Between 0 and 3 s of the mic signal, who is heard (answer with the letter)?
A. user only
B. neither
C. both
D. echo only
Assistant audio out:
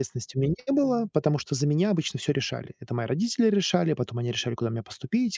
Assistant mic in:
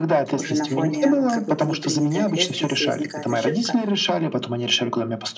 C